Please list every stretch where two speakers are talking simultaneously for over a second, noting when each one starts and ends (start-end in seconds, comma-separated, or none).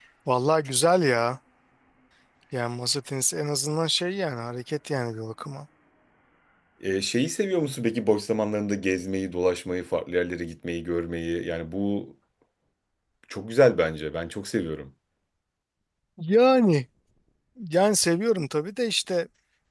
none